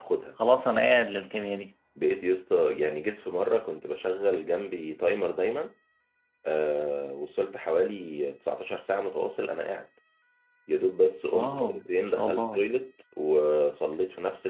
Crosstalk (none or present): present